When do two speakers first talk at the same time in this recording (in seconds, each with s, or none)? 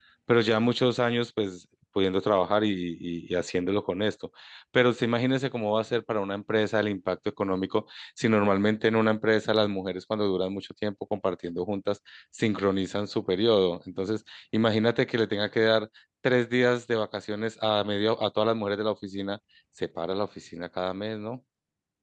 none